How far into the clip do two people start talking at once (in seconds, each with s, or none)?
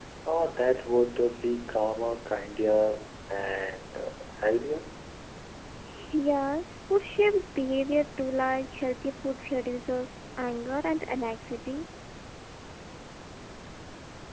none